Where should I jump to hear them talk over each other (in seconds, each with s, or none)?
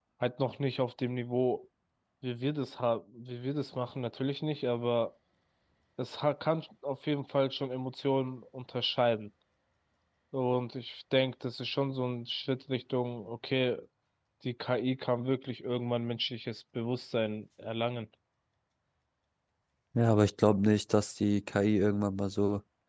none